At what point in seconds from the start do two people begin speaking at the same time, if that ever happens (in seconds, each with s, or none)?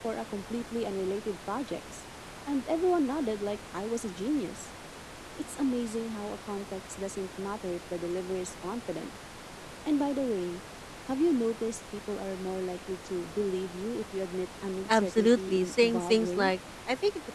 14.9 s